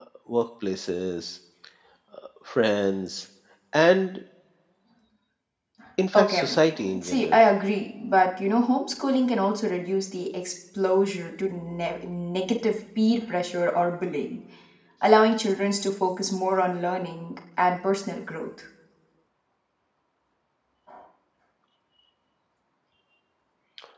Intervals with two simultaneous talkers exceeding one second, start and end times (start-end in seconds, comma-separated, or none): 6.1-7.4